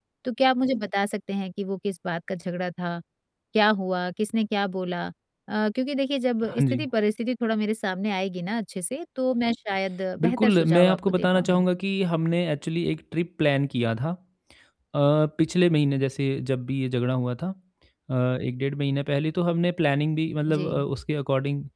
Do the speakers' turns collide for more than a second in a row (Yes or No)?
Yes